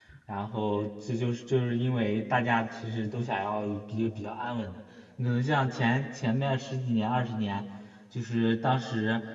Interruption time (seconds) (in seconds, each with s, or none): none